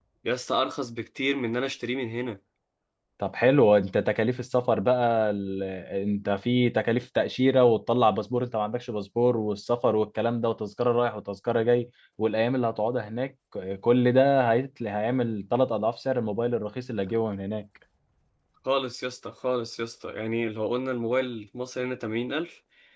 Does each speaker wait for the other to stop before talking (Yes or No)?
Yes